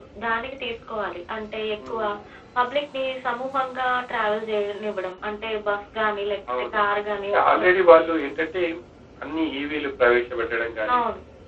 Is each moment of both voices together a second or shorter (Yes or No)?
Yes